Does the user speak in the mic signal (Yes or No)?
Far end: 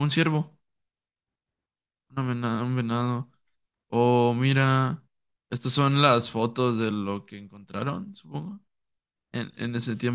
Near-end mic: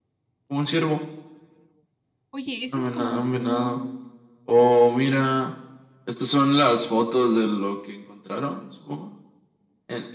Yes